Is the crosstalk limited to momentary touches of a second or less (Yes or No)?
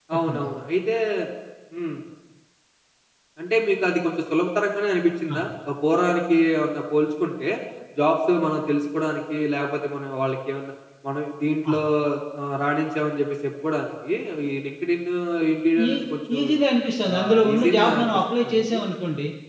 No